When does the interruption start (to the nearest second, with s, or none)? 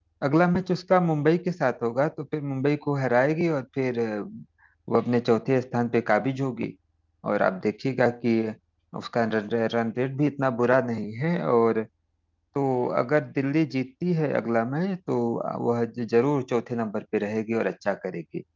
none